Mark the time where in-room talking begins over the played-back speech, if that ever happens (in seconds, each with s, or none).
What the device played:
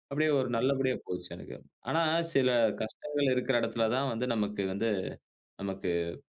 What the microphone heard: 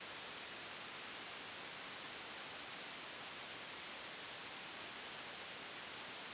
none